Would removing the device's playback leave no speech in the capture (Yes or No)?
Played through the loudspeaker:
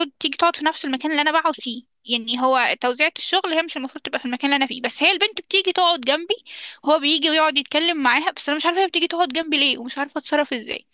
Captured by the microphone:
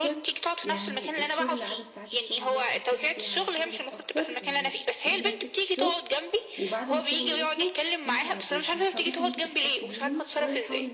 No